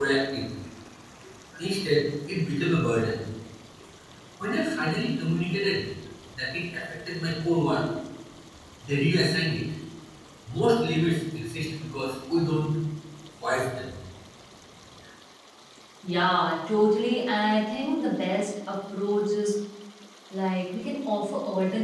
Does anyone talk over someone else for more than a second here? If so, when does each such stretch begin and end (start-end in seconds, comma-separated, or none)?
none